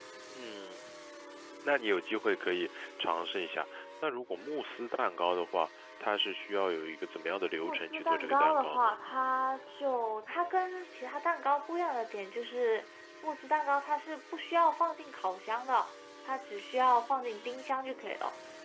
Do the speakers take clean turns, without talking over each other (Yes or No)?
No